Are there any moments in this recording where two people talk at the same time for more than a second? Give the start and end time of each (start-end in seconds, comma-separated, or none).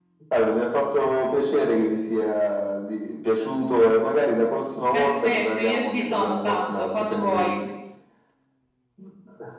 4.9-7.6